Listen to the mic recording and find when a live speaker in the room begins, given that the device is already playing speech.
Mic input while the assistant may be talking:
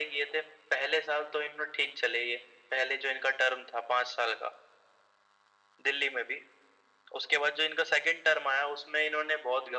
none

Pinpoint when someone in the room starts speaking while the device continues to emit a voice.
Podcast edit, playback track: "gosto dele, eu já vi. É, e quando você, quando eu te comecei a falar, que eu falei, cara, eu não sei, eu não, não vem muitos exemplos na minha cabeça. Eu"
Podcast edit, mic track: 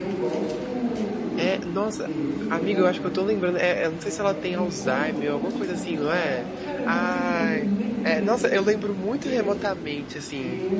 1 s

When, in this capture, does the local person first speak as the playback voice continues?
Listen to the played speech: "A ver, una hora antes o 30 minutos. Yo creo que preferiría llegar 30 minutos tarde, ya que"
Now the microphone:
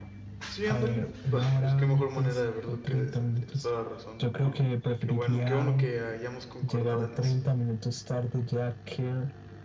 0 s

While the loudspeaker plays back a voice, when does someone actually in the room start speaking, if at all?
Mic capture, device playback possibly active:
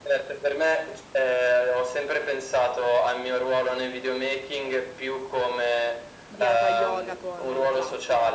6 s

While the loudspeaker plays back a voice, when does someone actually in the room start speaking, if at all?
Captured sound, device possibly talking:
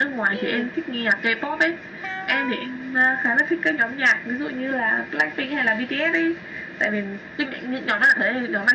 0 s

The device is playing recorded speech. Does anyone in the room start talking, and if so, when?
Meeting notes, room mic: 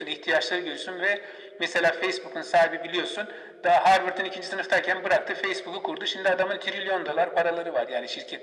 none

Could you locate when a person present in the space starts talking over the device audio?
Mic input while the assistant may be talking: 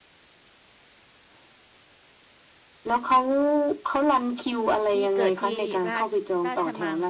5 s

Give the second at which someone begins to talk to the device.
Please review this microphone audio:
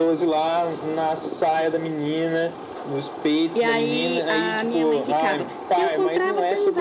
4 s

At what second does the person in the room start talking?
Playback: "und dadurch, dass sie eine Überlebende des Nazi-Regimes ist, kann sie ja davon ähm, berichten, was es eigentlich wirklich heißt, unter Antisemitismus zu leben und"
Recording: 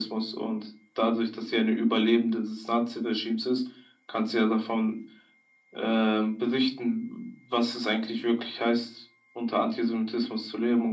none

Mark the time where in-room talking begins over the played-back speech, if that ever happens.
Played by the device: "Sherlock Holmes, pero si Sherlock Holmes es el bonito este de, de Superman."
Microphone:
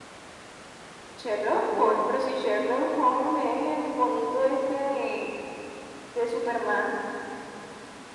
2 s

